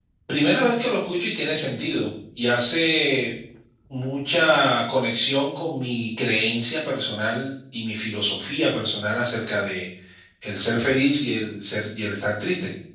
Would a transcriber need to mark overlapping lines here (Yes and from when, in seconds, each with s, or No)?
No